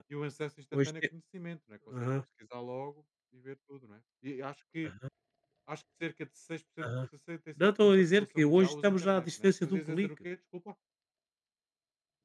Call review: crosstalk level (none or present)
present